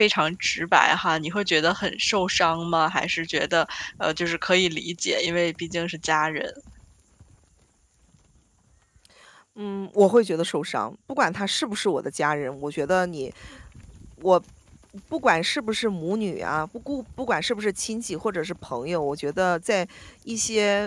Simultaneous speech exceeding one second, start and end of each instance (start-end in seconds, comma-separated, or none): none